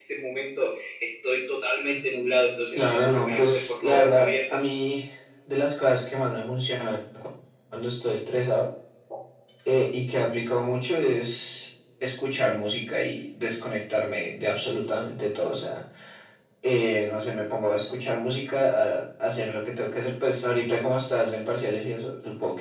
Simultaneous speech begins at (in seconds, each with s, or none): 2.8 s